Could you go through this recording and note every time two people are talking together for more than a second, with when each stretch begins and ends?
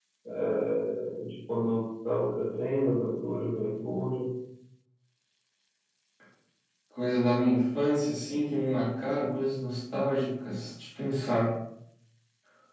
none

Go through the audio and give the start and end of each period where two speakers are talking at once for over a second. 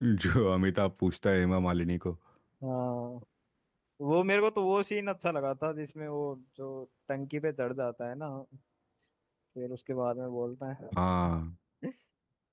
none

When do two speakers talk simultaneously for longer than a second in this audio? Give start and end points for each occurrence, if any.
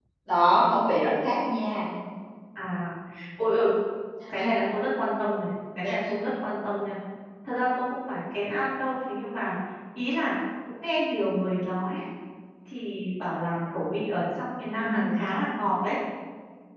none

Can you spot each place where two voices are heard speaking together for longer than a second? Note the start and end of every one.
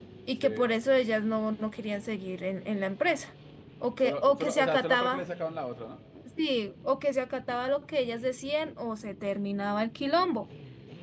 4.0-5.2

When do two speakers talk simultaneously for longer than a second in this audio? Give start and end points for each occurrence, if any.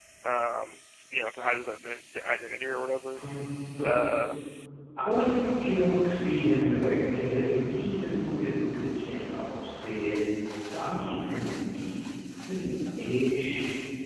none

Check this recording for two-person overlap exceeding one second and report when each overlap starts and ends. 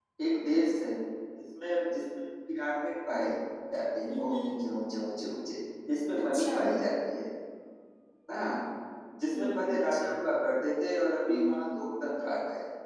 none

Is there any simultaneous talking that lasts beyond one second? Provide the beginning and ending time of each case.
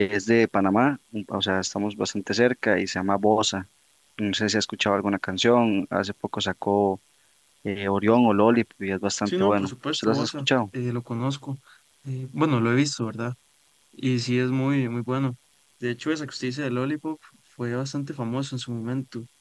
9.3-10.5

